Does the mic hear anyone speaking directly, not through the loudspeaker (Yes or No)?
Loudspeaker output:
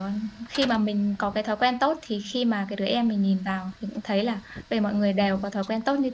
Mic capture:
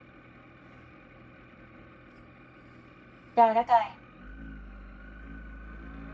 Yes